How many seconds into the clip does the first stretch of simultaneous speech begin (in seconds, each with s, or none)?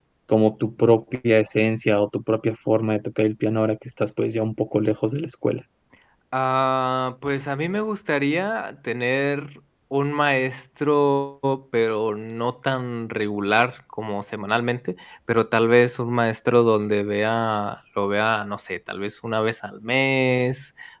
none